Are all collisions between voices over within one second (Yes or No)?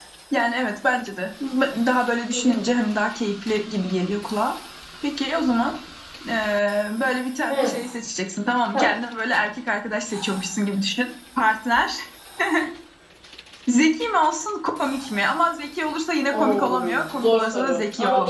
No